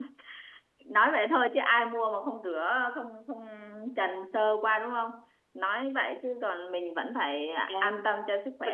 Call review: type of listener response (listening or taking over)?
taking over